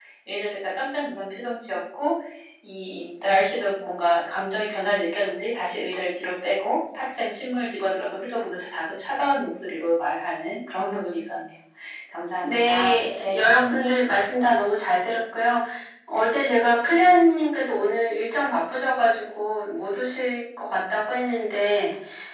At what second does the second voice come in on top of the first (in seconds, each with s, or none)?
12.4 s